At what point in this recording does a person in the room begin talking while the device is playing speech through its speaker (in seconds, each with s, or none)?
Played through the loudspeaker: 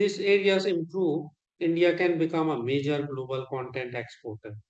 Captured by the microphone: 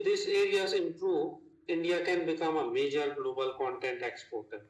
none